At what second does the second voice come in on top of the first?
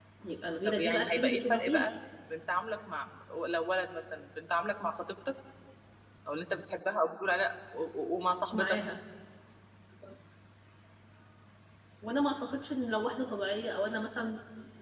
1 s

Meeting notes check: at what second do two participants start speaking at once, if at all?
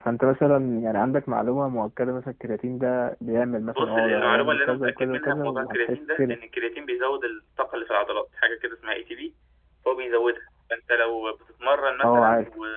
4 s

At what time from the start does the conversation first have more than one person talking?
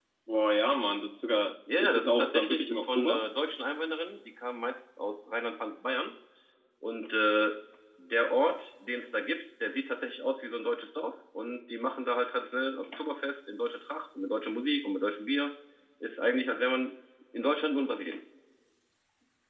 2 s

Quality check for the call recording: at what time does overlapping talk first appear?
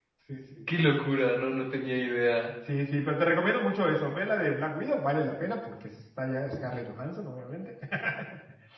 none

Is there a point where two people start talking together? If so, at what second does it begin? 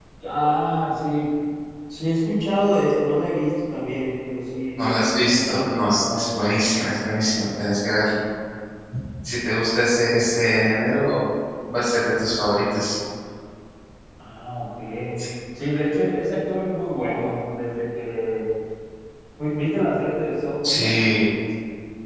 5 s

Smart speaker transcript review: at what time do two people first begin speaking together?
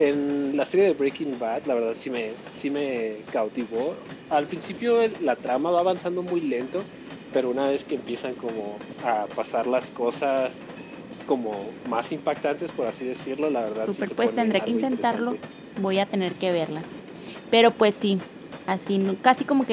14 s

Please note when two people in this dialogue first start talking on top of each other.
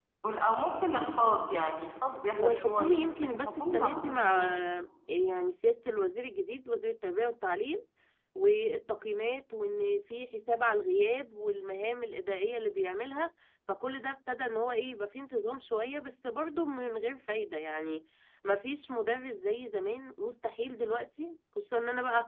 2 s

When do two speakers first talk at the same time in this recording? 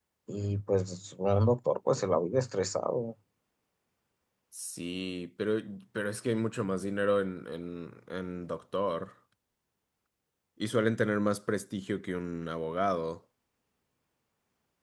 none

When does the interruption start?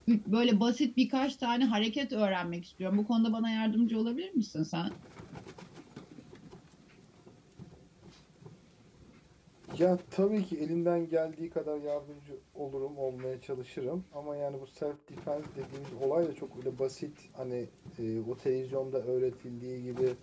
none

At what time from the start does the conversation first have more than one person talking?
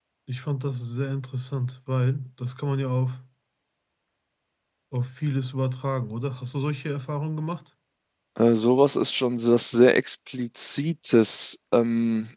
none

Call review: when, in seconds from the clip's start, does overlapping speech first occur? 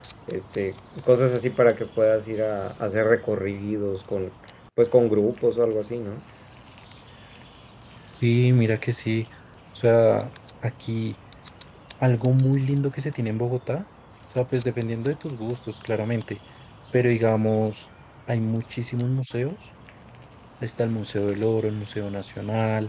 none

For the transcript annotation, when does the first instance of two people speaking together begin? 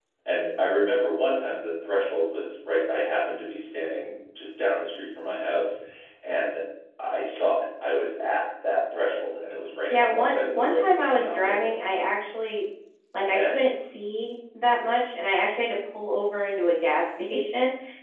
10 s

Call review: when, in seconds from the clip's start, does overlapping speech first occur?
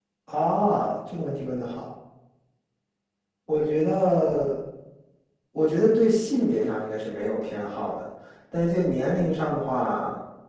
none

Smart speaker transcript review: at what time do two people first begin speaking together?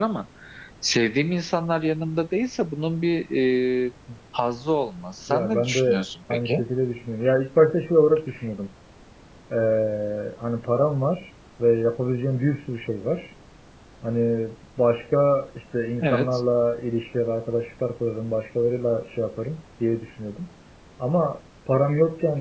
5 s

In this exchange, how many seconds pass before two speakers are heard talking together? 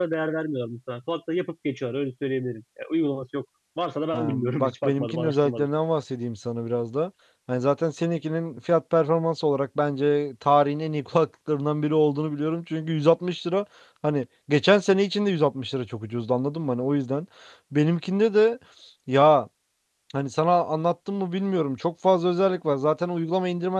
4 s

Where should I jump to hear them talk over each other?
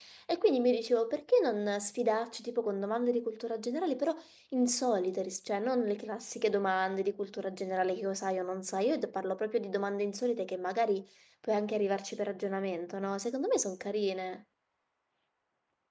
none

